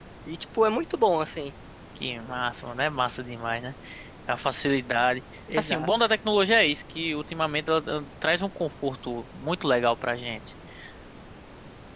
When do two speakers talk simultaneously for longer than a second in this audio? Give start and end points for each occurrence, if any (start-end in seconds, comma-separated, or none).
none